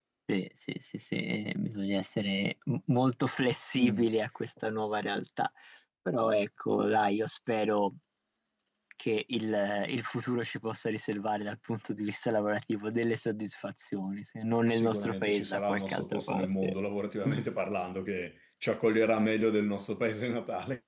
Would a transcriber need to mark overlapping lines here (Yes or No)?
Yes